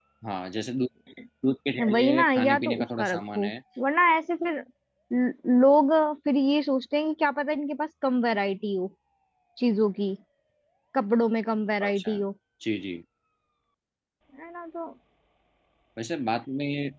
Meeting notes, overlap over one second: present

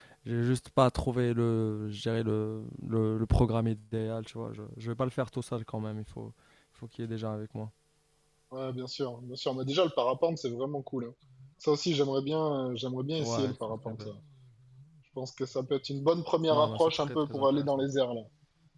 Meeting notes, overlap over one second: present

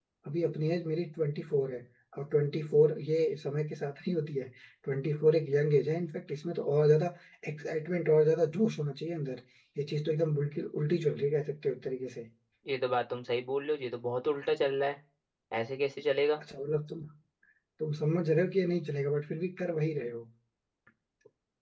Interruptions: none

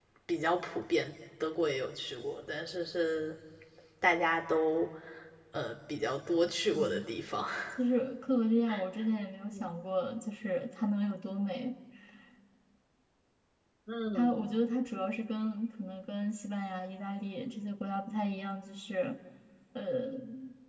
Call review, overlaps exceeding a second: none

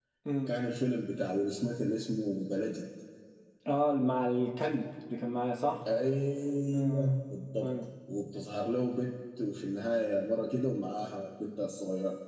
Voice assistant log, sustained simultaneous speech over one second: none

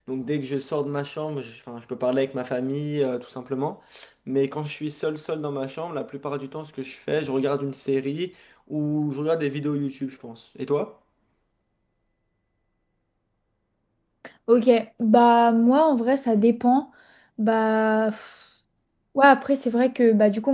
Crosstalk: none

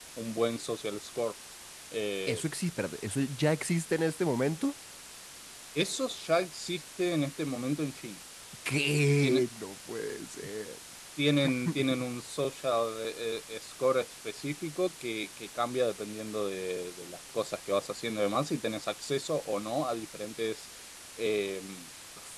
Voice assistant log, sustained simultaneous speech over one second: none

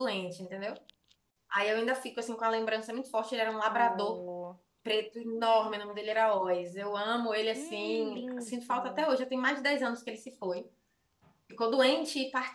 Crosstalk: present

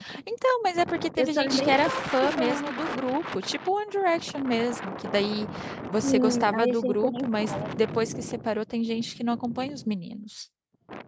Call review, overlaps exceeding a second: present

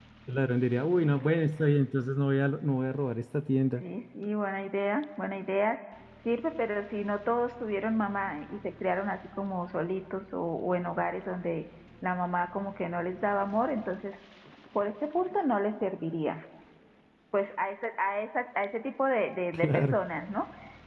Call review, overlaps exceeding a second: none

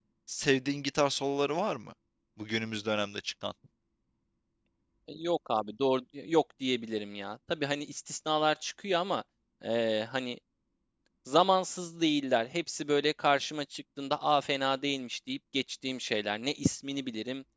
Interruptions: none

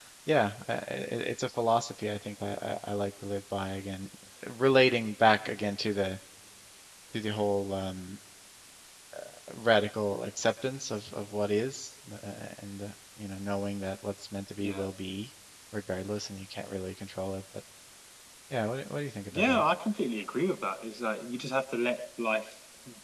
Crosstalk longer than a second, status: none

